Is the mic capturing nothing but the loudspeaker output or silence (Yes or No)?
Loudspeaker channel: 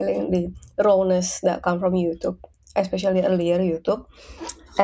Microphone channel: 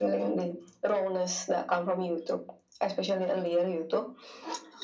Yes